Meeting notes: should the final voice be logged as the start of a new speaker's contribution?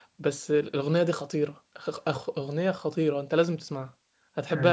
No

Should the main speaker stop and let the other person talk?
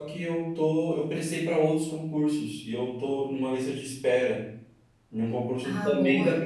No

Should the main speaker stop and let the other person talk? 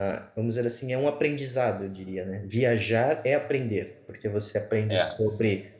No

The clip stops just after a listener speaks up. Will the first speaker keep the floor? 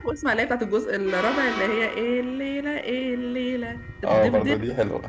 No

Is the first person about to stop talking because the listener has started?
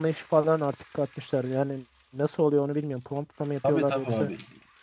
Yes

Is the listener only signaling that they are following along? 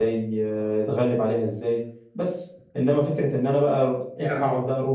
Yes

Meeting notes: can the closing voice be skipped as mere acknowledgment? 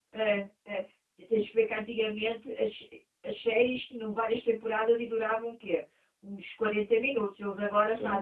No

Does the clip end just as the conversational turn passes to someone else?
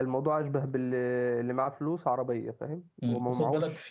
Yes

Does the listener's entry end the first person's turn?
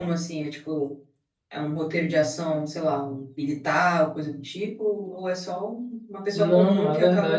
Yes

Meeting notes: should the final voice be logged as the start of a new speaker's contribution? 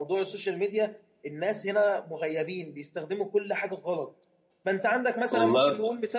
No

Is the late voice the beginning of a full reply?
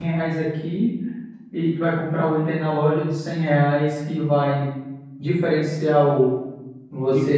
Yes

